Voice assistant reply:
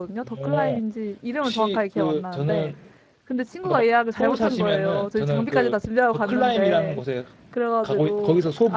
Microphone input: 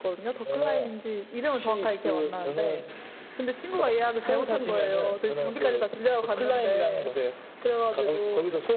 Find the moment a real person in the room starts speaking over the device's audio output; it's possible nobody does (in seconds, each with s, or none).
none